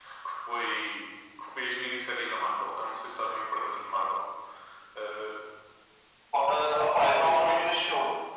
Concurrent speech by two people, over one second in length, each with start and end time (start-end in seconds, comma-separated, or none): none